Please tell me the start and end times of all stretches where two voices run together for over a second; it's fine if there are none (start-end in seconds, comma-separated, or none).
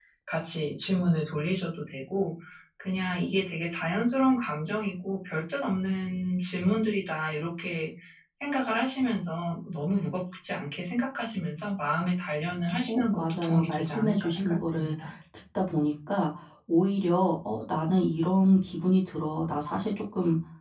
12.9-14.9